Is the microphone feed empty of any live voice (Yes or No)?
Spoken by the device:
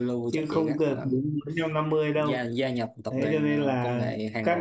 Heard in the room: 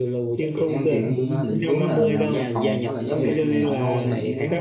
No